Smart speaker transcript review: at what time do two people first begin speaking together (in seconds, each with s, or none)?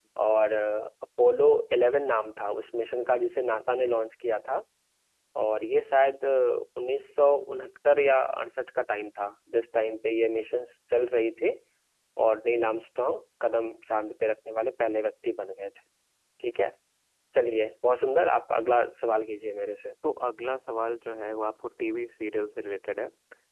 none